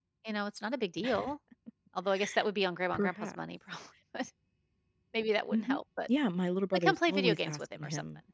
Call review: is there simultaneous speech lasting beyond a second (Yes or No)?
Yes